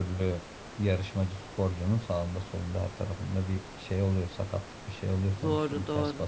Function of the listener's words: taking over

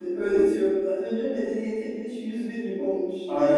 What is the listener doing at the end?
taking over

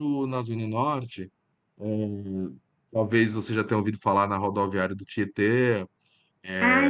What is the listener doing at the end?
taking over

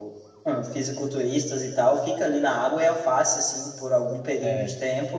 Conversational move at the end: listening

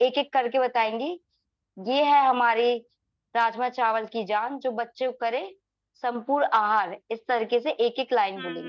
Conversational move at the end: taking over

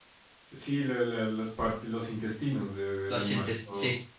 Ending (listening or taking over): taking over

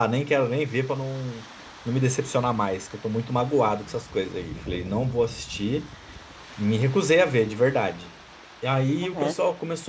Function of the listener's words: listening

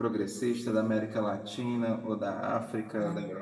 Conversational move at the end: taking over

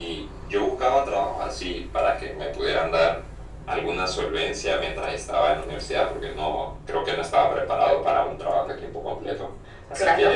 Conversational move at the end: listening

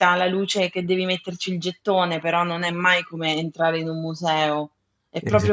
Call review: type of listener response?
listening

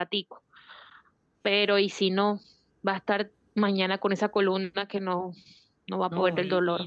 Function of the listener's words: taking over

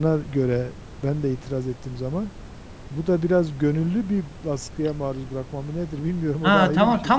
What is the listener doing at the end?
taking over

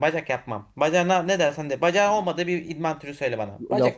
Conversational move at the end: taking over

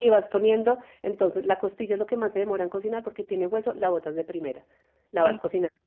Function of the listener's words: listening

